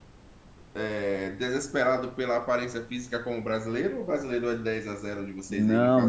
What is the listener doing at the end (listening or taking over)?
taking over